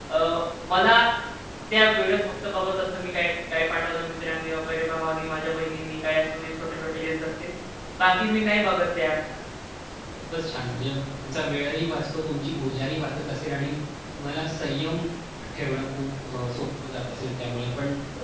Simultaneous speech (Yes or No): No